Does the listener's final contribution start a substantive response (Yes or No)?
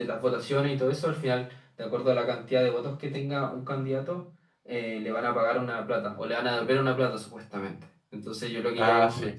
No